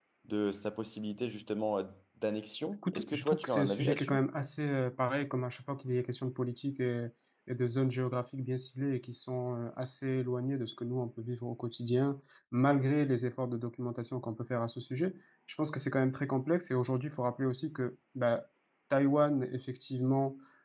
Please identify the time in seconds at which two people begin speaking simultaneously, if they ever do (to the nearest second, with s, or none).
3 s